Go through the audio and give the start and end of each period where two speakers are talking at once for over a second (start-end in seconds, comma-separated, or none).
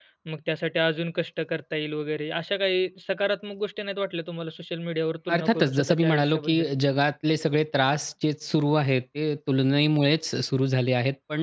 5.3-6.7